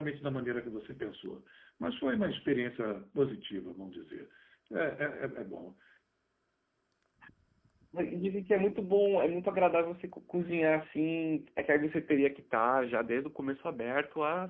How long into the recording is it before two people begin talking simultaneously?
none

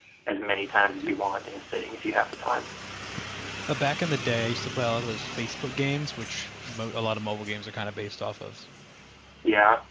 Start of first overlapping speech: none

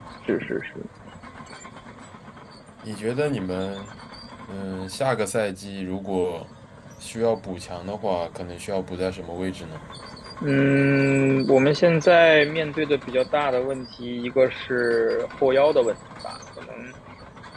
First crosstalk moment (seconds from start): none

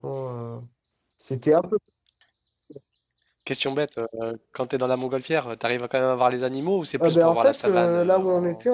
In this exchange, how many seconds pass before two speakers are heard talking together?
7.0 s

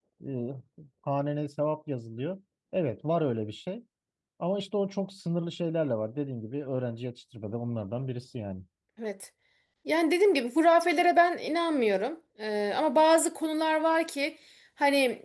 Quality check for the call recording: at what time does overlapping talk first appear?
none

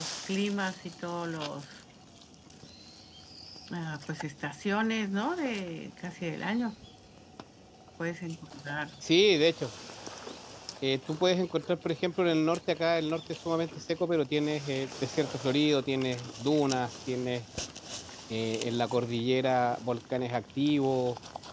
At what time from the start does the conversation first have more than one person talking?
none

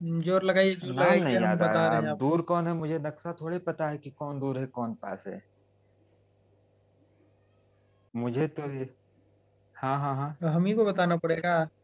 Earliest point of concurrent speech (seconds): 0.9 s

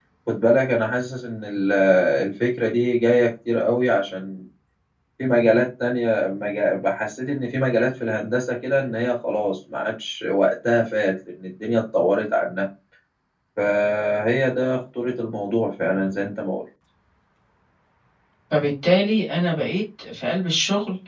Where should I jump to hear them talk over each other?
none

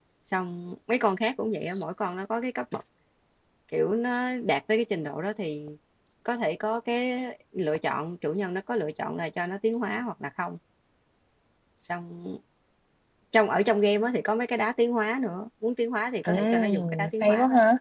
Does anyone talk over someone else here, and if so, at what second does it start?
16.2 s

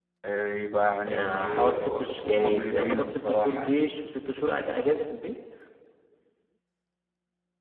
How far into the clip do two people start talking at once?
1.1 s

